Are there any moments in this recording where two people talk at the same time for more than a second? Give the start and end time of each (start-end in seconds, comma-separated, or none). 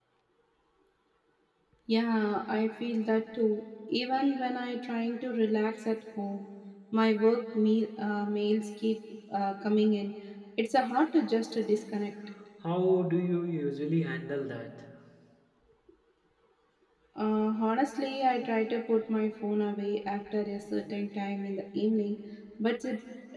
none